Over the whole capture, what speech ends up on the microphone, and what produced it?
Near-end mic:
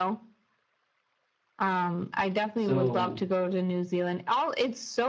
both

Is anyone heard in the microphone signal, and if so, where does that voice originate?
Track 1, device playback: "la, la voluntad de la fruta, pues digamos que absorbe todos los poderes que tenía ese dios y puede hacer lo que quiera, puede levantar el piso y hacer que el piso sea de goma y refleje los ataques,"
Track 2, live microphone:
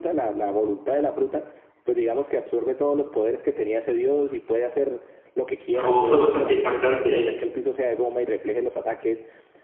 both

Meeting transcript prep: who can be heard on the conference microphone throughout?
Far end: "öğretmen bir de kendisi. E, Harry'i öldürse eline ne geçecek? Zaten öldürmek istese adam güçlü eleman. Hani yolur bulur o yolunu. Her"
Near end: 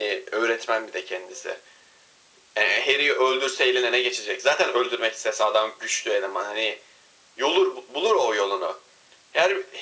echo only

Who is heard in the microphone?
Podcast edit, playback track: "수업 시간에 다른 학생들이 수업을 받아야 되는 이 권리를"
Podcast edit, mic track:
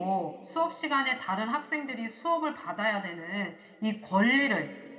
echo only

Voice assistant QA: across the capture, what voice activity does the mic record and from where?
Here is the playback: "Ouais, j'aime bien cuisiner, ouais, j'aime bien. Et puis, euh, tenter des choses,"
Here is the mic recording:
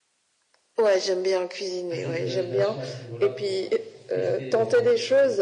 both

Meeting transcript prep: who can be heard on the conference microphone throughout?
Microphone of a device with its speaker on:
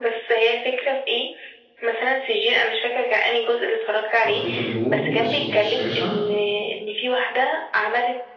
both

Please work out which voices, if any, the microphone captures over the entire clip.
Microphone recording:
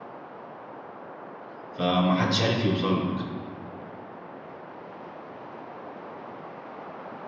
user only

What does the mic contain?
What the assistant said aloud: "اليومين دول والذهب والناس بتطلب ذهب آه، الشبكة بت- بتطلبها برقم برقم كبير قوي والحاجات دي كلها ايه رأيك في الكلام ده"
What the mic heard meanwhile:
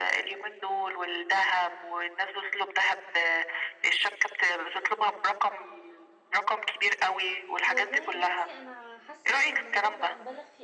both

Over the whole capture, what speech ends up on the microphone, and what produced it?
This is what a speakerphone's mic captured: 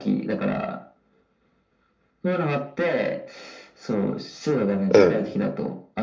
both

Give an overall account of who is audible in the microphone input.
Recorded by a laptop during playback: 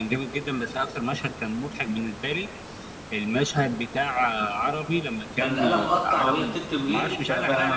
both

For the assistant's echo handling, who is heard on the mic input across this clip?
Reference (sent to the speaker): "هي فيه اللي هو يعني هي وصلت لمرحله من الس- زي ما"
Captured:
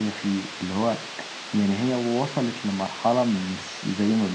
echo only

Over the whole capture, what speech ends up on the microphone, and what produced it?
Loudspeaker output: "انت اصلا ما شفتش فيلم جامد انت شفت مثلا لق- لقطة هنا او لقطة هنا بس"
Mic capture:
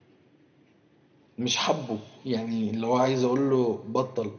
user only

